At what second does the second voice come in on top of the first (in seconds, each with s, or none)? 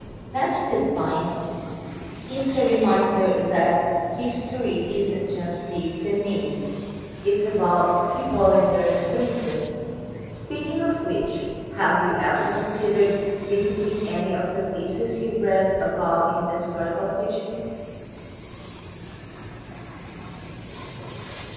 none